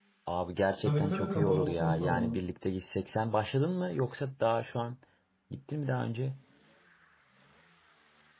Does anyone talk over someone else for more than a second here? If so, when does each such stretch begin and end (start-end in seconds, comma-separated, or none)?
0.8-2.3